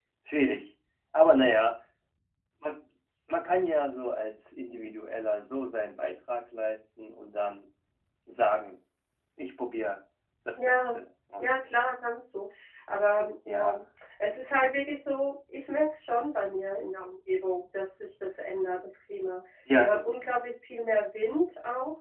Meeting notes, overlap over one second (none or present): none